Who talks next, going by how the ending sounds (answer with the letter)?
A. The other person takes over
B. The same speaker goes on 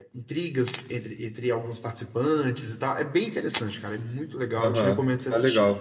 A